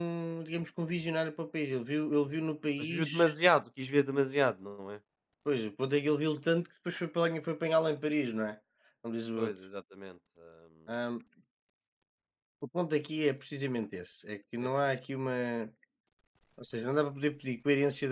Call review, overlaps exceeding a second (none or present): none